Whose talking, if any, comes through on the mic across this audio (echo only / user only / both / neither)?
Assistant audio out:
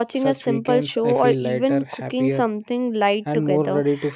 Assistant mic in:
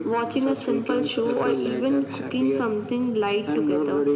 echo only